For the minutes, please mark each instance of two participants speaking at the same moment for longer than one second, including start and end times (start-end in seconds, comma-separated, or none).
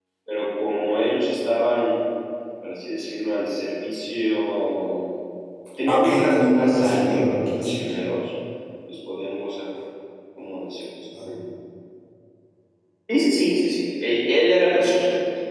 5.9-7.7